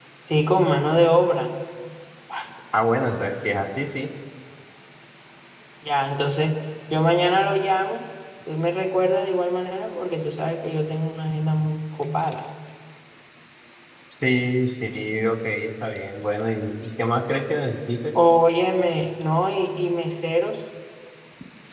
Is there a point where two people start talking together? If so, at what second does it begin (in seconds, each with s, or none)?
none